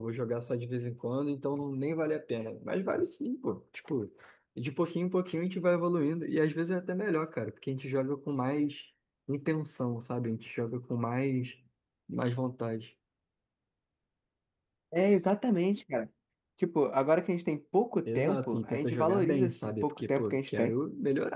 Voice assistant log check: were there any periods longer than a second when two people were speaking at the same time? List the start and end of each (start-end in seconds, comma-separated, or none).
18.1-20.7